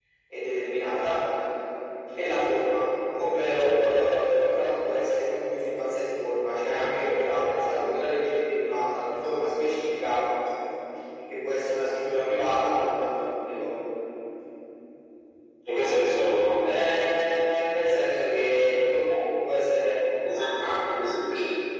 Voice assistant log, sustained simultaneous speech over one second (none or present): none